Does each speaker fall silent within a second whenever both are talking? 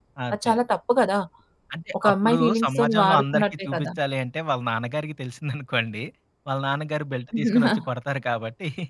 No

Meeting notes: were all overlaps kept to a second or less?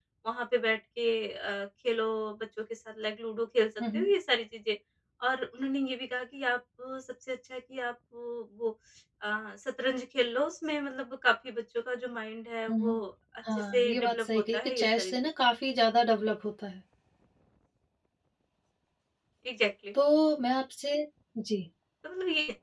No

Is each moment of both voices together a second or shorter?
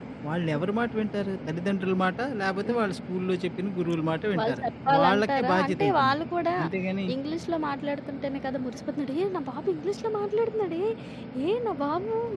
No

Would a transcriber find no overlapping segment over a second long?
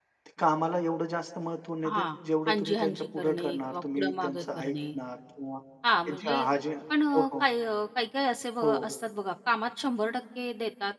No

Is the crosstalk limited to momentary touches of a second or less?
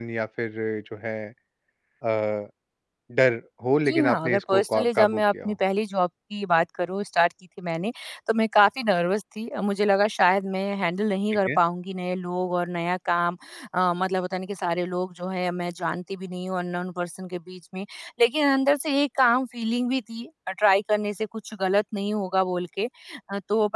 No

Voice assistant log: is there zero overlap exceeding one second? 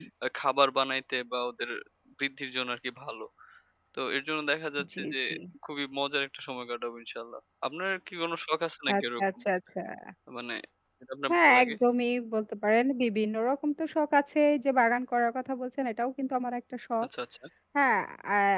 Yes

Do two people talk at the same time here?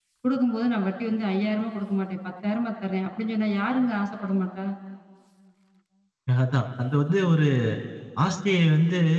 No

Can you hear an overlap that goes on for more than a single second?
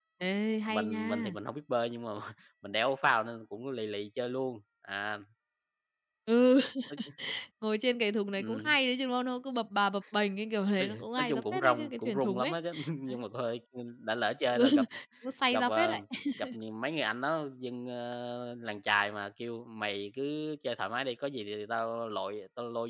Yes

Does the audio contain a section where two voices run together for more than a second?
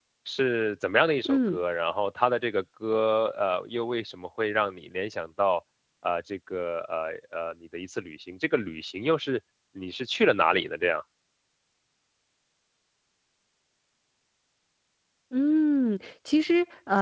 No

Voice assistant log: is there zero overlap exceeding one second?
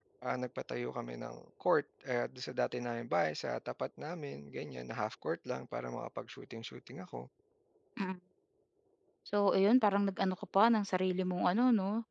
Yes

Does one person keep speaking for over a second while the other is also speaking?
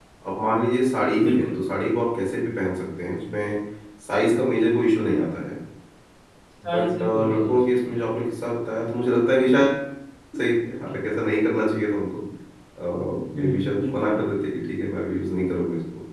Yes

